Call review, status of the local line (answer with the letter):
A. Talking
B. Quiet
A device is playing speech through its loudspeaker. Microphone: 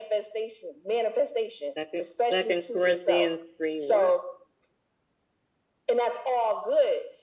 A